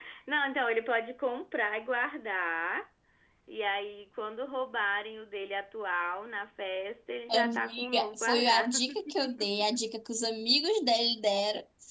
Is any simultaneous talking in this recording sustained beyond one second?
Yes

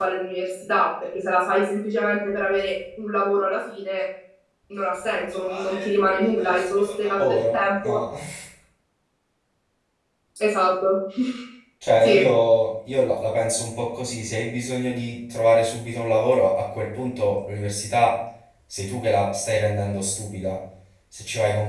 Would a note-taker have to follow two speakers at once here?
Yes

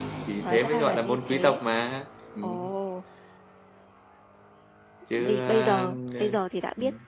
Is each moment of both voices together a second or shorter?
No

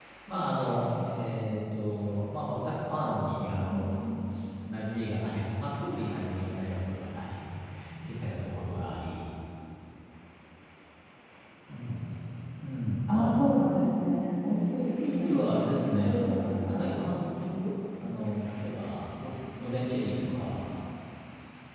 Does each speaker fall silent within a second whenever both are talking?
No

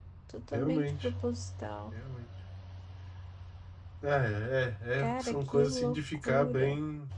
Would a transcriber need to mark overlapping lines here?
Yes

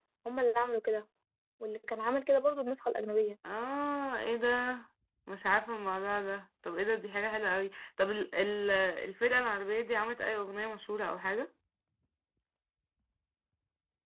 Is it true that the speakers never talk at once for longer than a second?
Yes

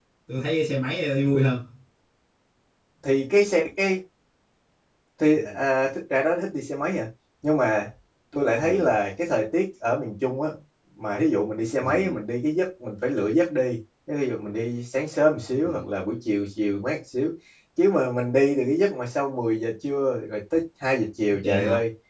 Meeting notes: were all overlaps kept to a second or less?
Yes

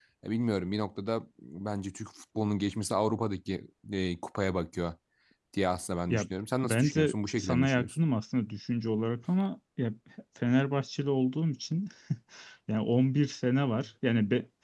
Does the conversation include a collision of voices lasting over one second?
Yes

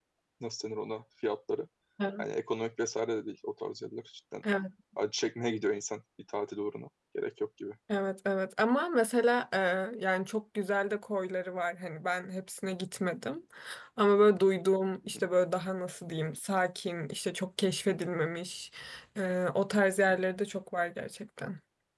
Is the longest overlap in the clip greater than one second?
No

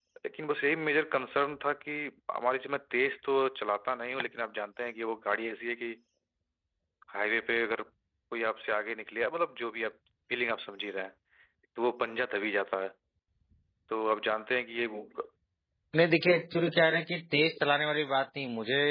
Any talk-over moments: No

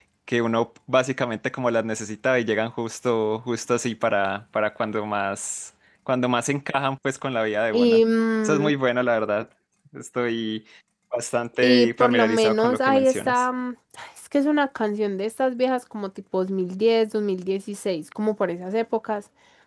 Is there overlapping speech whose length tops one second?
Yes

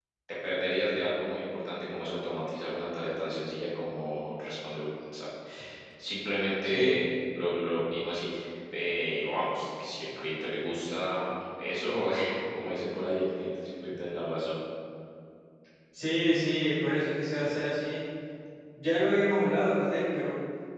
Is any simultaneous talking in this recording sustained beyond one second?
No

